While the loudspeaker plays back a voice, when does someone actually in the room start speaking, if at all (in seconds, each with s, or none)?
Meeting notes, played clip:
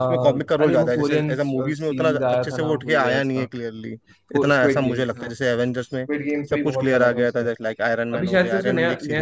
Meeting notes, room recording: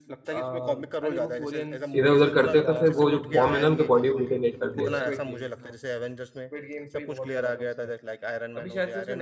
1.9 s